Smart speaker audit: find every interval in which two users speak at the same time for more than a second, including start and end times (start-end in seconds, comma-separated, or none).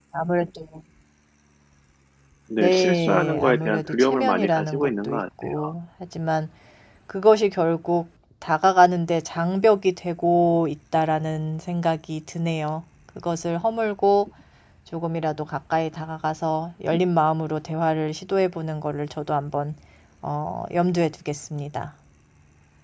2.6-5.7